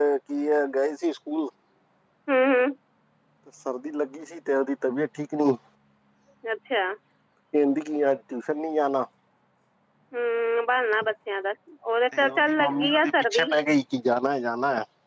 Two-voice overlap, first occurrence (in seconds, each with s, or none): 12.3 s